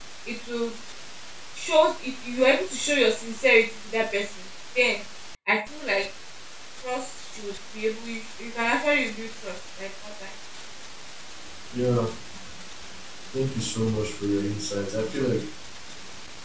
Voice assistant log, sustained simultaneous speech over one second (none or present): none